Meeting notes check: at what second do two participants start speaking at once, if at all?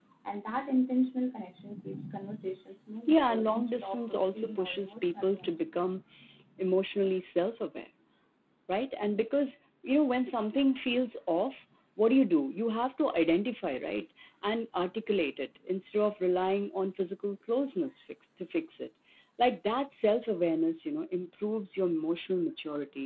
3.1 s

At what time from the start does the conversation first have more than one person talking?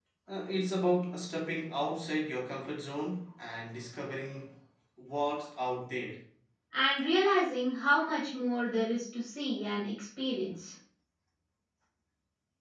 none

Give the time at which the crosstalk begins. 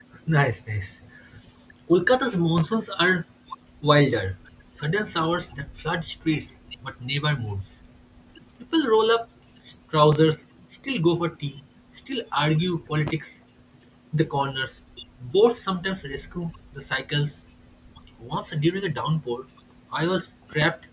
none

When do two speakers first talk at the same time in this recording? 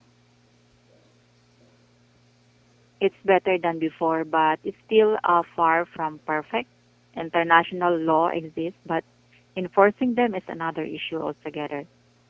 none

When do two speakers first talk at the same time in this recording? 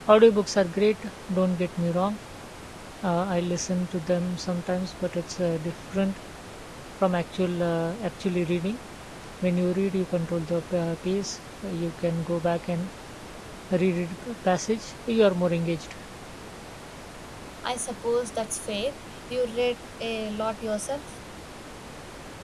none

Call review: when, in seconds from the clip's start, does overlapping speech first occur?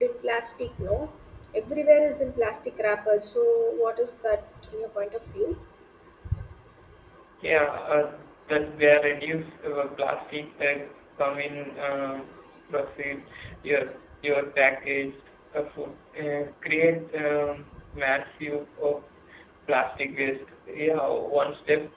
none

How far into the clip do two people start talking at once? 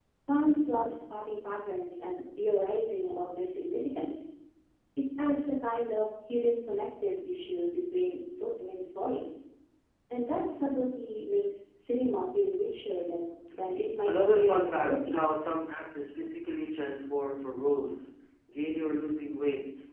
14.1 s

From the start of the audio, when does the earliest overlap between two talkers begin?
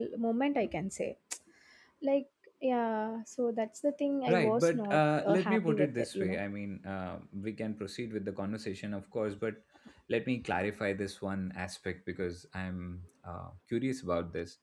4.3 s

